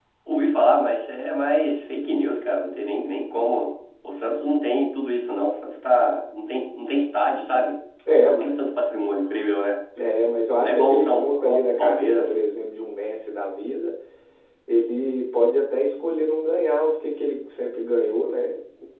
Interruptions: present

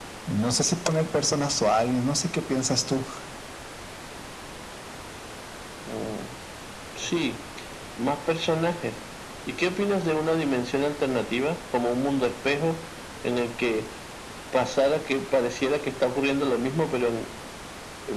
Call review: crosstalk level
none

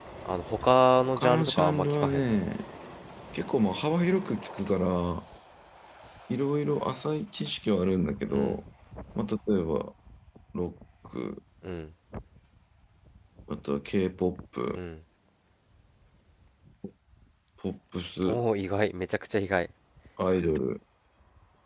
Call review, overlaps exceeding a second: present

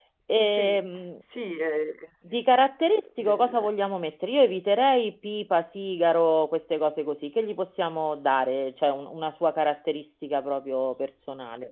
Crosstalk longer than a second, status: none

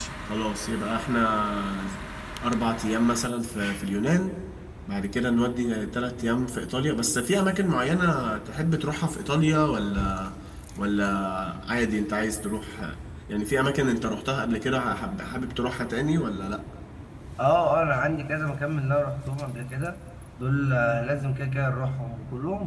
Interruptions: none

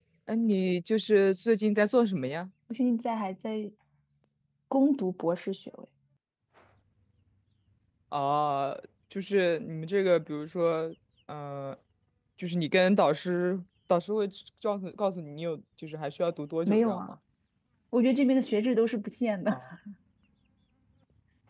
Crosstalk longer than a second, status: none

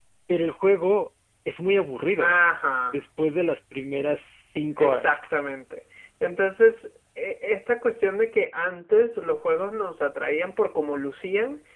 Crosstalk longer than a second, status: none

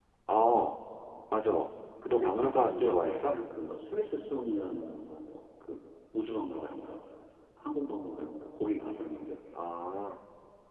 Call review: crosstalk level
present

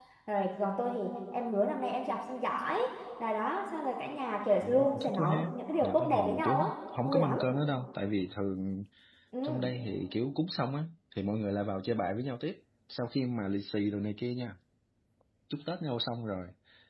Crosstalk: present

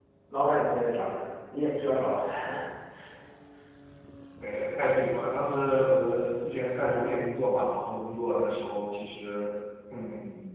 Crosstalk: none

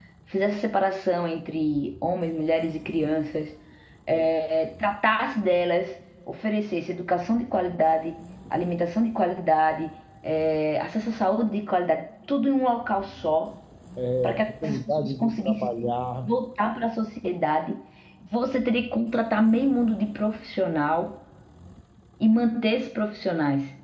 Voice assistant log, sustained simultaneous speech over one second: present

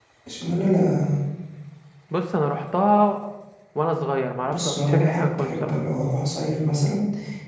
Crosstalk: present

